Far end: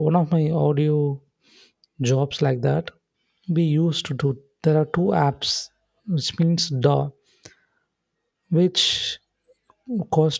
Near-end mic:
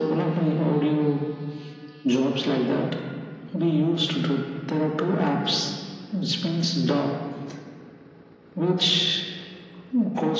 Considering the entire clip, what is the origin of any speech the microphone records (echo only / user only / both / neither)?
echo only